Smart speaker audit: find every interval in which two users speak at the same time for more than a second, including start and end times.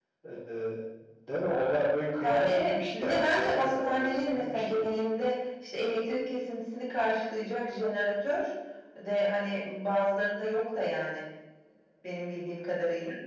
2.2-4.8

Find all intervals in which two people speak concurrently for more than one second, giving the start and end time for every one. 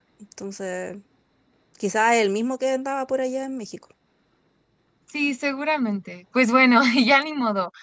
none

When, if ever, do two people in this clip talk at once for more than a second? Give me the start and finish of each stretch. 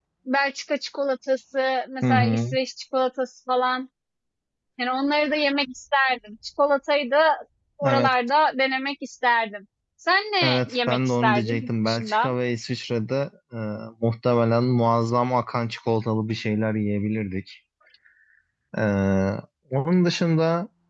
10.4-12.3

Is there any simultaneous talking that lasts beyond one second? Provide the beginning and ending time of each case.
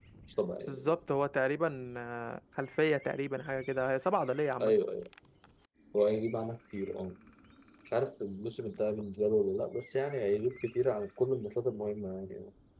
none

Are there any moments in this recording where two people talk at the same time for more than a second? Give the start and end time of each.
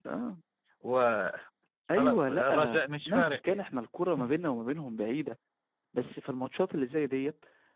1.9-3.7

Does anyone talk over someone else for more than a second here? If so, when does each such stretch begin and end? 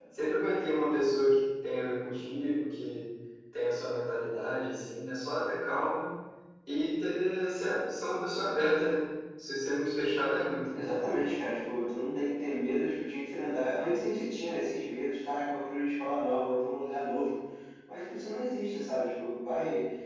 none

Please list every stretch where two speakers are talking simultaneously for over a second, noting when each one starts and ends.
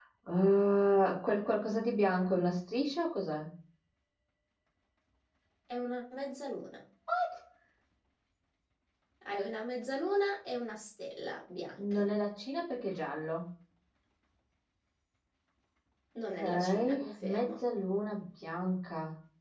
16.3-17.6

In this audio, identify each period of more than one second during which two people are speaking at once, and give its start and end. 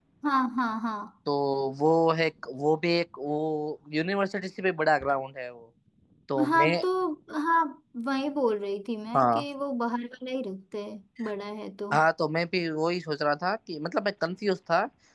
none

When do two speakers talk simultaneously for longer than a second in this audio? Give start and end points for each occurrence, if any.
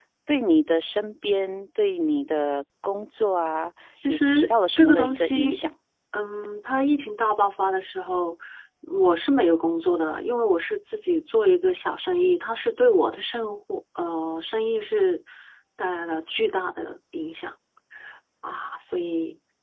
4.1-5.6

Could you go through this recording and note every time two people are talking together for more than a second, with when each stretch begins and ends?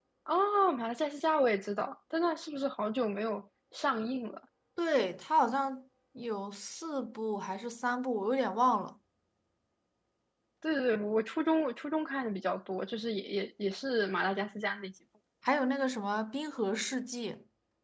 none

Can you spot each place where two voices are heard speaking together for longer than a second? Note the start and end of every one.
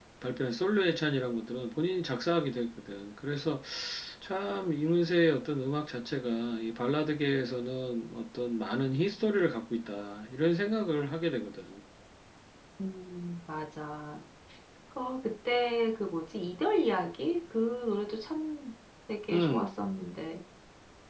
none

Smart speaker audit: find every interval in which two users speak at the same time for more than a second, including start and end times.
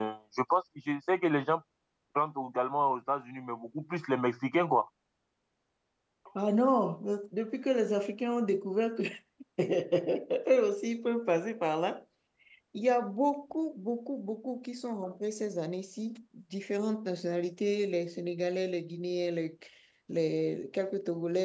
none

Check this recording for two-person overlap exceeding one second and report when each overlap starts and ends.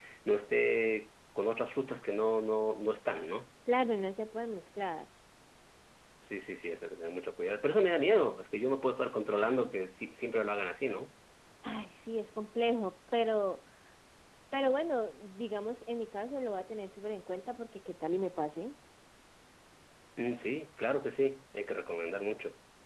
none

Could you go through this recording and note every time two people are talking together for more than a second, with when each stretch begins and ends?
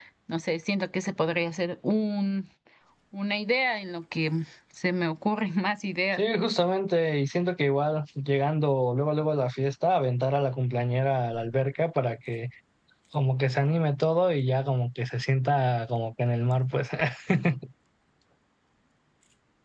none

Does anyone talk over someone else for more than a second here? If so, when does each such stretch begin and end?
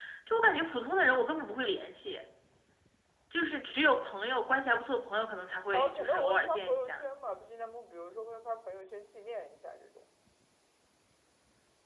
5.7-7.0

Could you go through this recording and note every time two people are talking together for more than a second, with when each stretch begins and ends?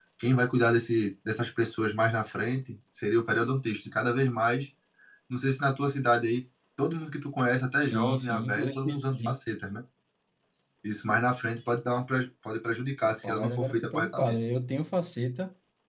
7.8-9.3, 13.1-14.3

